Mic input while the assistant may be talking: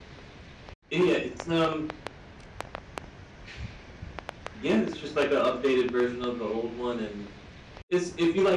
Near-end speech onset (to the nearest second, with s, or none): none